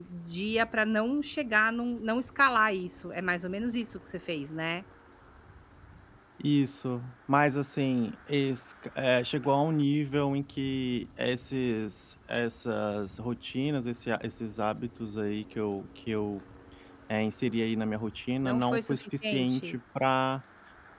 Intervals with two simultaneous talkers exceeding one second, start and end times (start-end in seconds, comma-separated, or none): 18.4-19.8